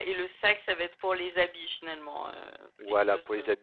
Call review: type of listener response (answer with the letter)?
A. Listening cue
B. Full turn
B